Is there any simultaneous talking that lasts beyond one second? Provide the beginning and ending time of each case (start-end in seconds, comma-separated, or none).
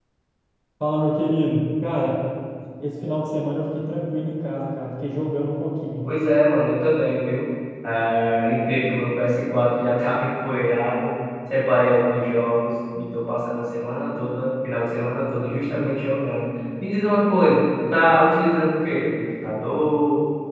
none